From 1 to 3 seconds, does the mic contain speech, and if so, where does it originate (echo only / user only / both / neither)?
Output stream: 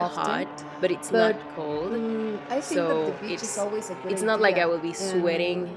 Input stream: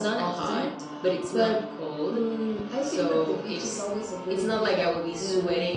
echo only